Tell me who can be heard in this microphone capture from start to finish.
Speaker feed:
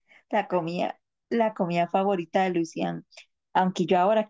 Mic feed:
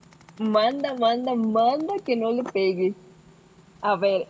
user only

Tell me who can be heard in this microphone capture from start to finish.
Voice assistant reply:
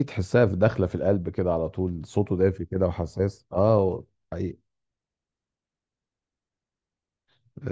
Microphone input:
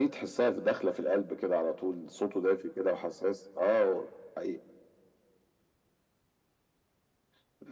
echo only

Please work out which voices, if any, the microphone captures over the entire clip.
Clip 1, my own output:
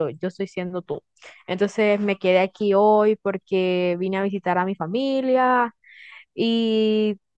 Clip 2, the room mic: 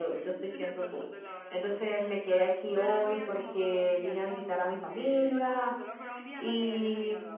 both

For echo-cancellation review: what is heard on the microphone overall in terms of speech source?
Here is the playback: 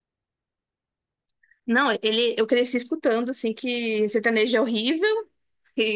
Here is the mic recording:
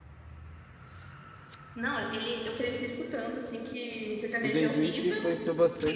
both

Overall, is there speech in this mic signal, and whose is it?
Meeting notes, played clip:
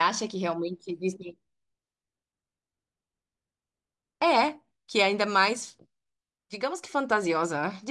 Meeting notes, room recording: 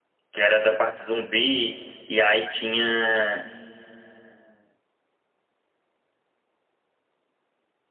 user only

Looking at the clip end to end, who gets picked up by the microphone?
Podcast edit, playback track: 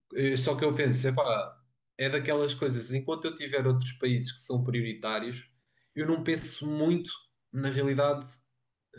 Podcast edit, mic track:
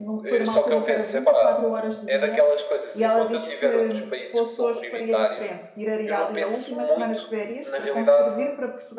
both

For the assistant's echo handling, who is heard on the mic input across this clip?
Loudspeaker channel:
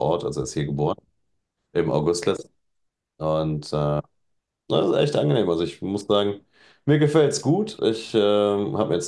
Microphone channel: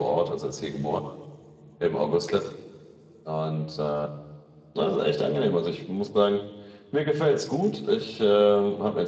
echo only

